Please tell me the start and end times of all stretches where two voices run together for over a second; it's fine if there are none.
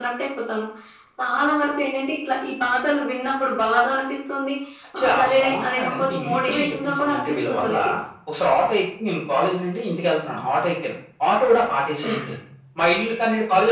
5.0-7.7

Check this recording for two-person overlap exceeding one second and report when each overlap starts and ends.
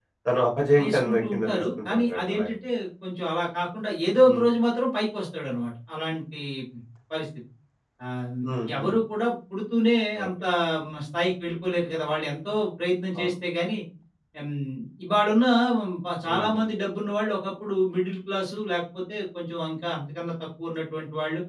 0.8-2.5

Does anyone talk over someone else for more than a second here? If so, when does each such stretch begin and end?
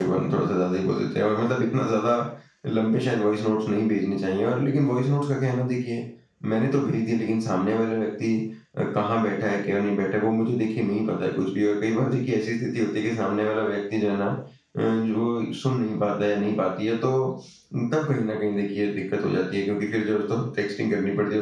none

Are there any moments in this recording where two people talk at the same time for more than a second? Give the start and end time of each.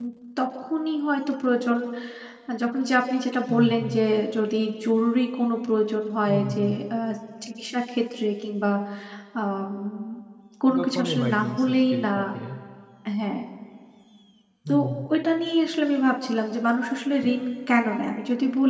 10.8-12.1

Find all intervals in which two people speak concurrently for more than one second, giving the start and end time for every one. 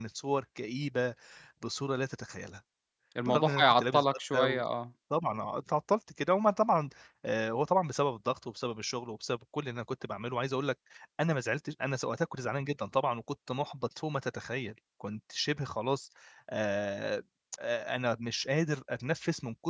3.2-4.6

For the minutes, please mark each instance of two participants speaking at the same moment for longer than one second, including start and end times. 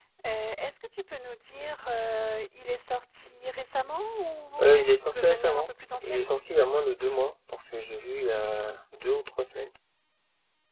4.6-6.2

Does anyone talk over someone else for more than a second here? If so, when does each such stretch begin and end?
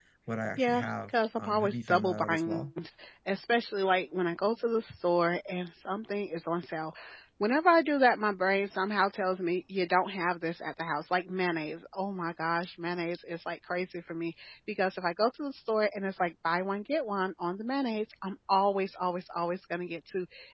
0.6-2.7

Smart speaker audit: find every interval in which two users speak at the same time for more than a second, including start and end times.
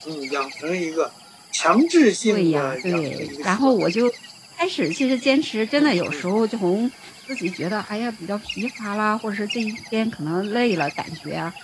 2.3-3.7

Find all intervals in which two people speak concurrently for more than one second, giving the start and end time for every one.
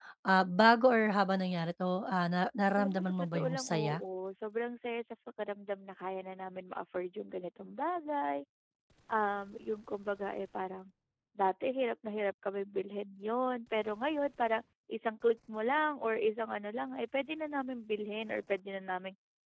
2.8-4.0

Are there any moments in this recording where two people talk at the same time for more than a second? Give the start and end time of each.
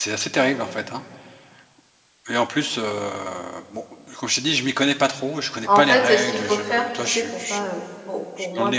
5.6-7.7

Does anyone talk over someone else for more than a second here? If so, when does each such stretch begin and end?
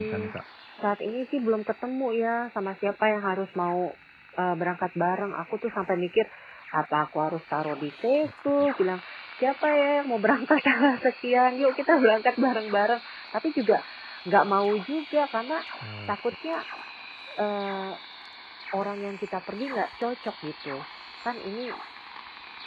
none

